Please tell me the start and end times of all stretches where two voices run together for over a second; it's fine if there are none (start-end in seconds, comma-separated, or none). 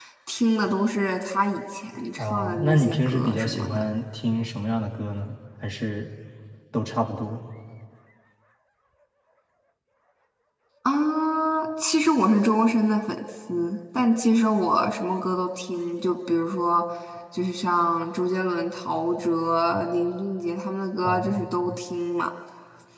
2.2-3.8